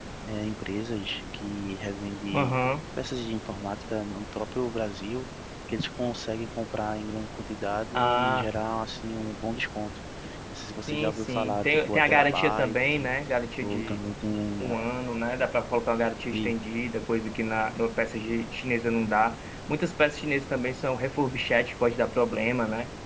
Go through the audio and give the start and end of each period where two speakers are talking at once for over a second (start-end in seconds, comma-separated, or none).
10.9-13.1